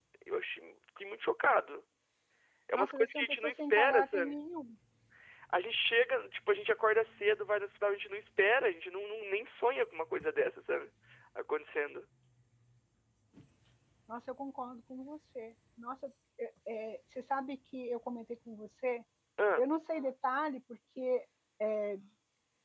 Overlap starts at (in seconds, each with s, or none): 2.7 s